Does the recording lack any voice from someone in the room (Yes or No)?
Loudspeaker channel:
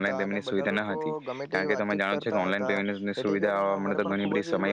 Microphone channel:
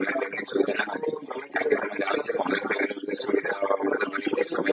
Yes